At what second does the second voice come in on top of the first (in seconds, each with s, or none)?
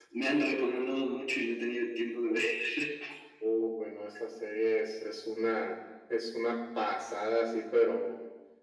none